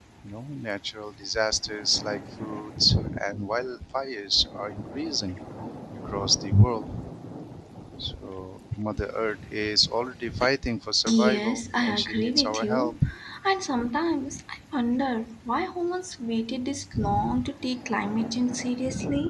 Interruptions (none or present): present